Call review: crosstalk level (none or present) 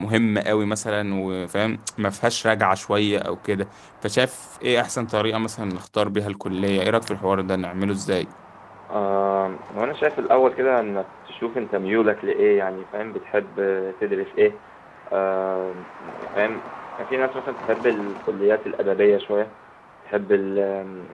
none